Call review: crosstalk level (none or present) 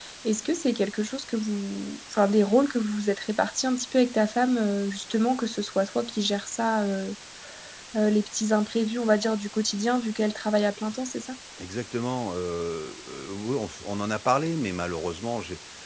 none